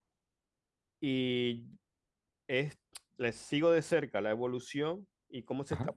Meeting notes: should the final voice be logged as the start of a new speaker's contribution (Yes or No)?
No